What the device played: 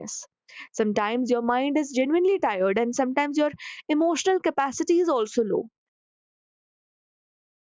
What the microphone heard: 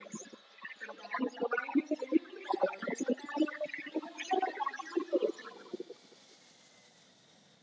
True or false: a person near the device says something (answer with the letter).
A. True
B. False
B